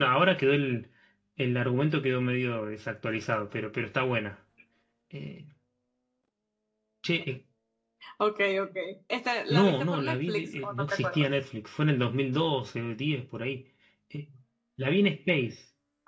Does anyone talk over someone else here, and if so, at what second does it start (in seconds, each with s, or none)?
9.5 s